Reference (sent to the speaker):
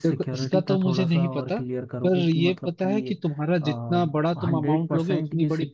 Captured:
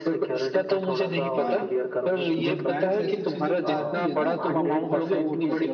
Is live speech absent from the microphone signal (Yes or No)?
No